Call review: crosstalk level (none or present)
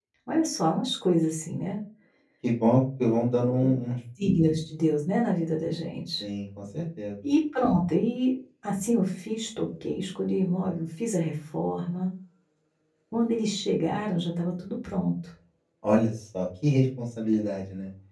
none